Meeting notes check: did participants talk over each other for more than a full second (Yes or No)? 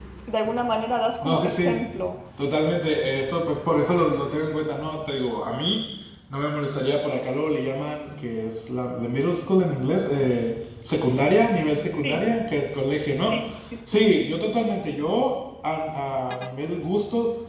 No